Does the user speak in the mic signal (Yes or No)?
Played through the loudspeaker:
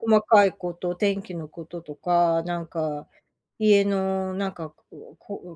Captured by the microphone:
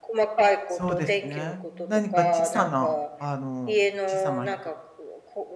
Yes